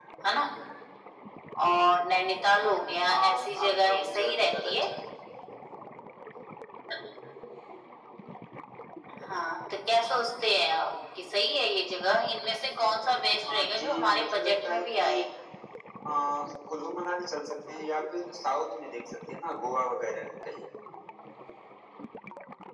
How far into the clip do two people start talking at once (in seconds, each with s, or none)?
3.1 s